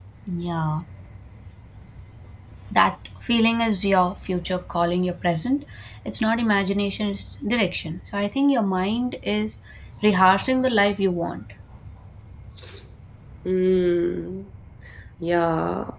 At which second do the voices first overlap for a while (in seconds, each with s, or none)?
none